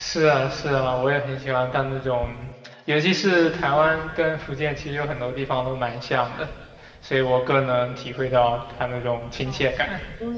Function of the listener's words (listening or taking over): taking over